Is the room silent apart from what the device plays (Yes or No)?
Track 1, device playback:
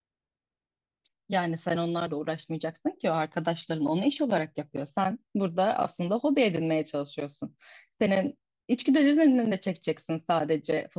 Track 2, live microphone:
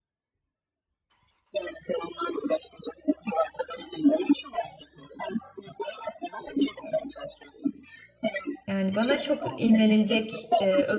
No